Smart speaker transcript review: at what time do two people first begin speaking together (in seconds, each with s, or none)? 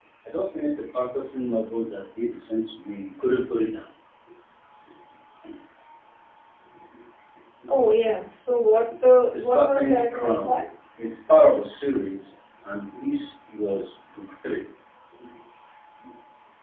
9.3 s